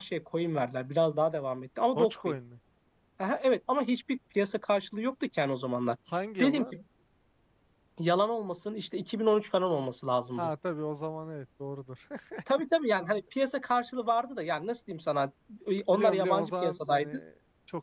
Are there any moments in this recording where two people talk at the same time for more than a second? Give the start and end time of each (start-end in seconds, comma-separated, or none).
15.9-17.2